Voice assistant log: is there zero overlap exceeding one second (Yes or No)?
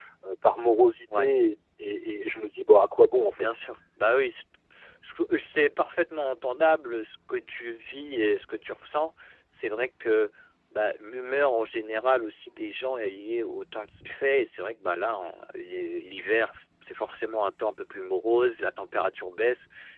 Yes